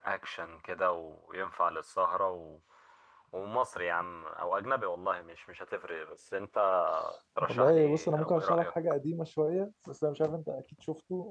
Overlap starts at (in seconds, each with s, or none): 7.4 s